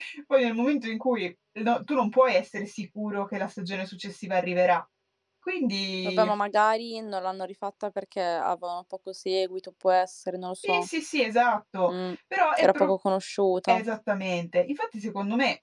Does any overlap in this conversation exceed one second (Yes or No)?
No